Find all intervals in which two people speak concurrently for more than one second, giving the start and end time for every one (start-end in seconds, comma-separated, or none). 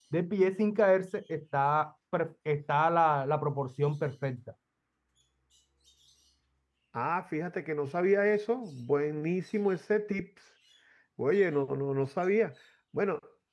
none